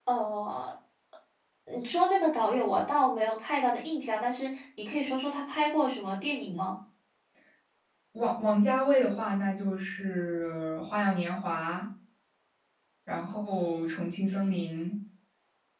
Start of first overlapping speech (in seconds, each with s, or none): none